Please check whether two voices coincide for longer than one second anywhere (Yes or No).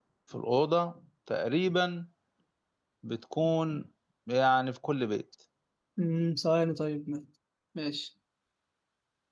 No